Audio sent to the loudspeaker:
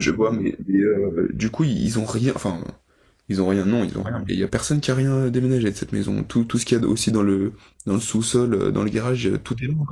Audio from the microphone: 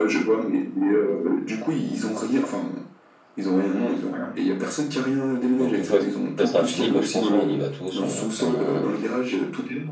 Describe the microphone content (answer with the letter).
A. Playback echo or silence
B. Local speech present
B